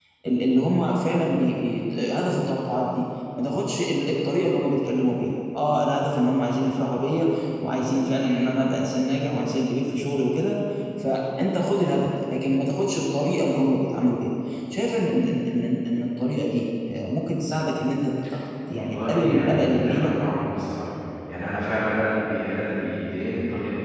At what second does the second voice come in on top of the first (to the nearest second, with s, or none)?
19 s